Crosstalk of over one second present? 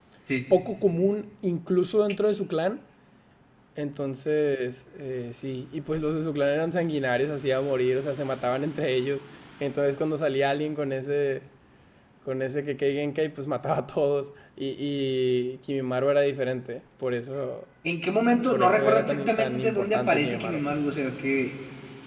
Yes, from 18.5 s

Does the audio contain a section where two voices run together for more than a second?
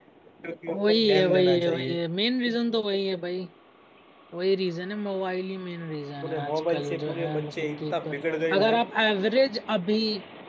Yes, from 0.7 s

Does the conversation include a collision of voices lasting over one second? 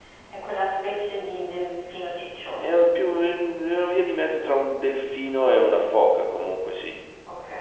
No

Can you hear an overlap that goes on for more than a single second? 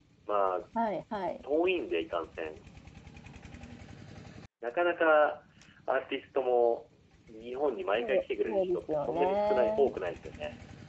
Yes, from 8.0 s

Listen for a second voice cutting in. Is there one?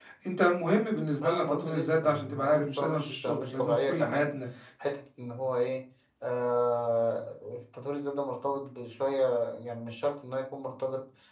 Yes, from 1.2 s

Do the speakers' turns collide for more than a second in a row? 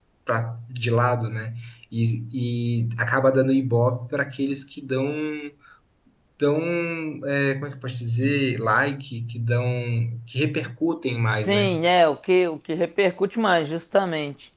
No

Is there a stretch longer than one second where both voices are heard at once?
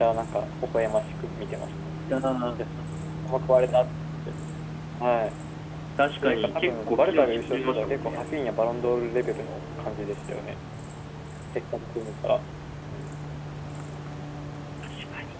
Yes, from 6.2 s

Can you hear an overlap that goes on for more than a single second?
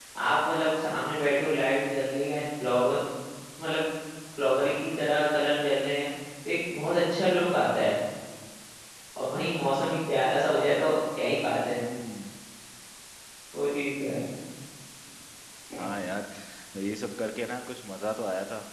No

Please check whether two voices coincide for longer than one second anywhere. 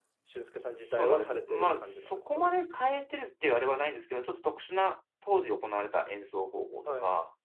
Yes, from 0.8 s

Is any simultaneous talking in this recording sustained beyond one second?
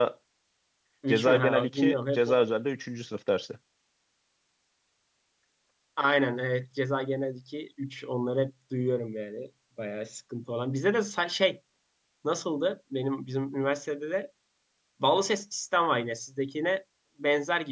Yes, from 1.1 s

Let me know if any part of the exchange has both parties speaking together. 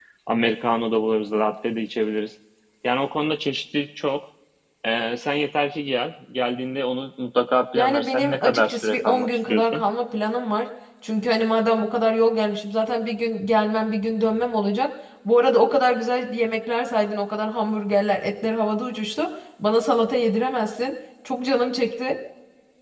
Yes, from 7.8 s

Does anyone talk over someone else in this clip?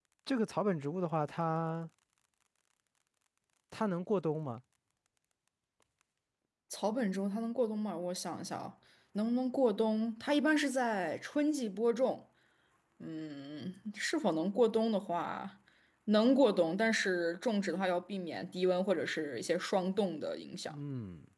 No

